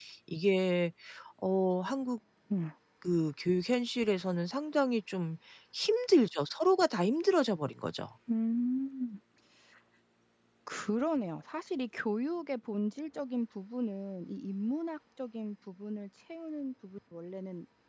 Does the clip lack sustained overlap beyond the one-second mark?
Yes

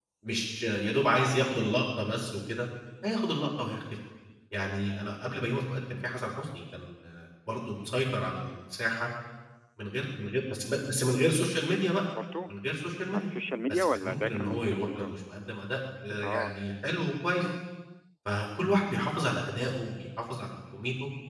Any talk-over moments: Yes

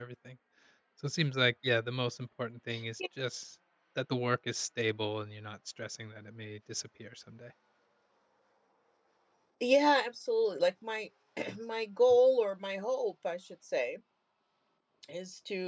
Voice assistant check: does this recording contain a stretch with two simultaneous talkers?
No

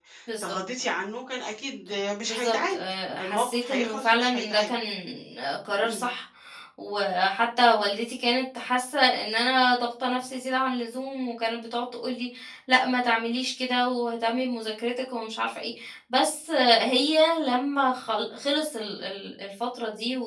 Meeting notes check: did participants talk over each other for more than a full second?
Yes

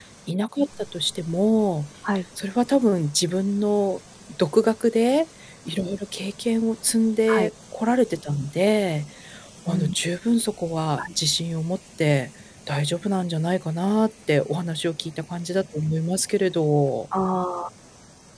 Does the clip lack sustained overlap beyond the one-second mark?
Yes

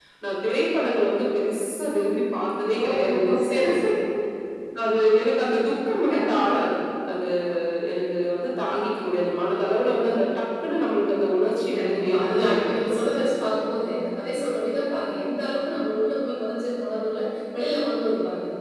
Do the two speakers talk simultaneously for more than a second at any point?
Yes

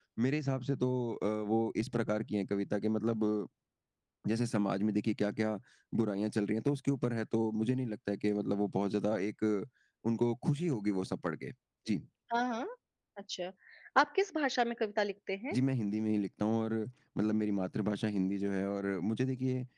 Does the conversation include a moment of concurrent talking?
No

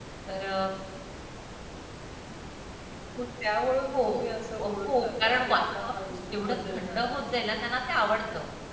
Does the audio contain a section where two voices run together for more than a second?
Yes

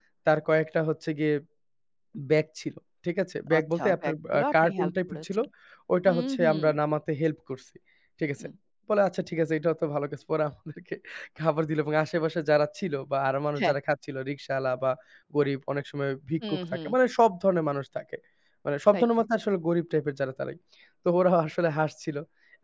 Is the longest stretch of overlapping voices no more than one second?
No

